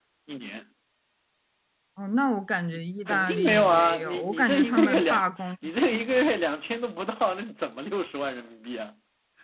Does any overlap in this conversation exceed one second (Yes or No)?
Yes